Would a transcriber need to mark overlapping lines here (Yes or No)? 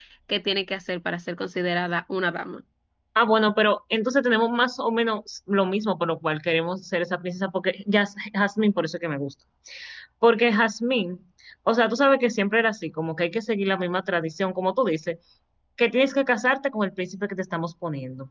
No